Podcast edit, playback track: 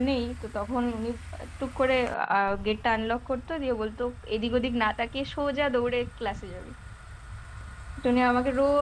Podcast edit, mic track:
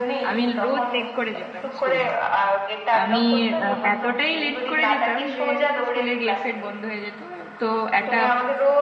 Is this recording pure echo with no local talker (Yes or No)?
No